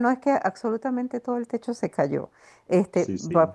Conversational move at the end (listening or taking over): listening